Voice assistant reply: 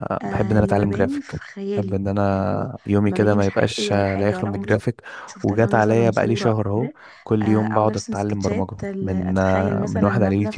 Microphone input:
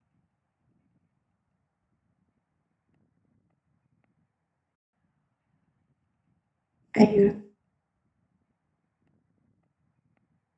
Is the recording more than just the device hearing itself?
Yes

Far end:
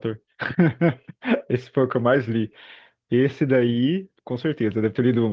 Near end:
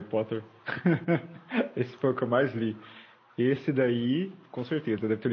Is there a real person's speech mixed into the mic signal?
No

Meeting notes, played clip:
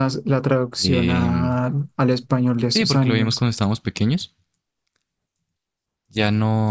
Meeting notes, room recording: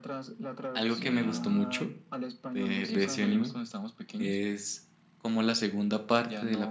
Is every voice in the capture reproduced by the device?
No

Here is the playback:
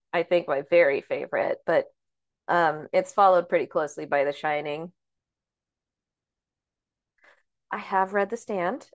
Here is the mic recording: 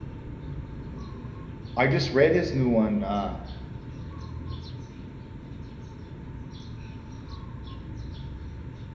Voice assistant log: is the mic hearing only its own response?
No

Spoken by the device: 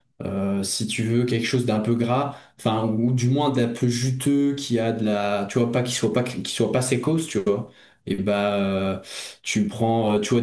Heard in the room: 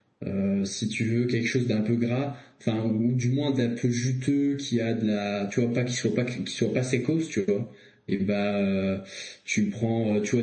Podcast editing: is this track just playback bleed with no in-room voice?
Yes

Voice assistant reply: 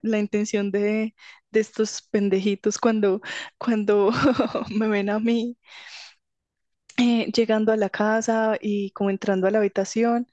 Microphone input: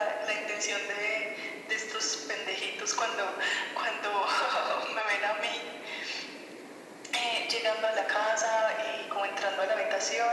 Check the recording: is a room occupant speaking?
No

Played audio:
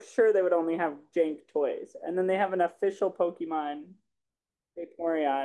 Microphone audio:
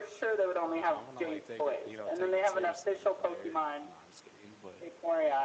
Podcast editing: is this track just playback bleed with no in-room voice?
No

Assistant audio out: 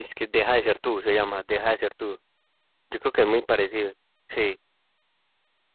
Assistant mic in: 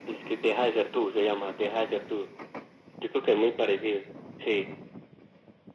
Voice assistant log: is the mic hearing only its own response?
Yes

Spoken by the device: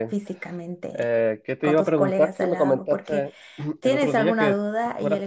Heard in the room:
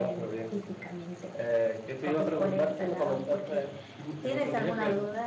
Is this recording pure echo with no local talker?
Yes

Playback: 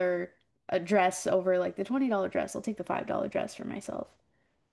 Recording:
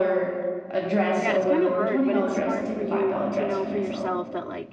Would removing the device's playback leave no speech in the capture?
No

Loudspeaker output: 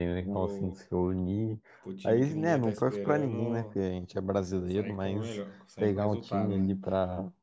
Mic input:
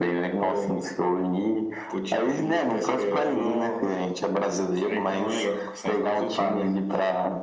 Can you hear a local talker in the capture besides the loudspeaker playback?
No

